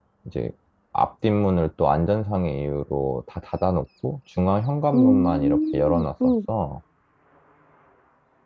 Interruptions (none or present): present